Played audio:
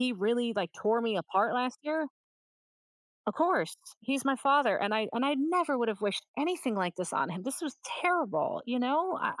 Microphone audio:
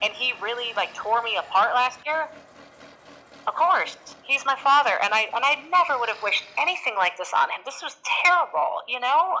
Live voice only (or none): none